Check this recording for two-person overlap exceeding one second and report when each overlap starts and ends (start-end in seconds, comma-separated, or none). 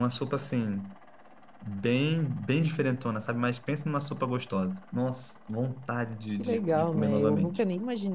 6.4-7.6